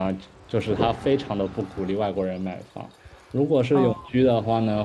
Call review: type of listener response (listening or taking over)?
listening